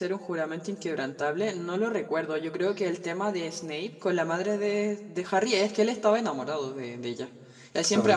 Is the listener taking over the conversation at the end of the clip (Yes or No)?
No